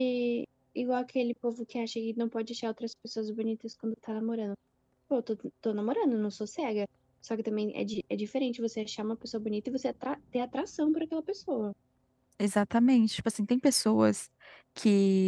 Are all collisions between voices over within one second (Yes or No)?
Yes